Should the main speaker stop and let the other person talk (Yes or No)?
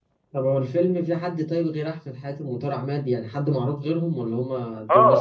Yes